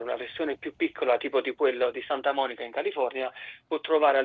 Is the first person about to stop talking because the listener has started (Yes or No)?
No